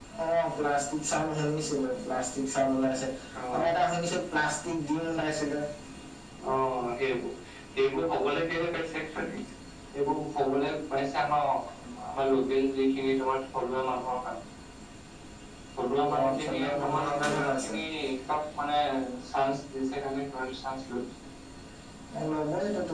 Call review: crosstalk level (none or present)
present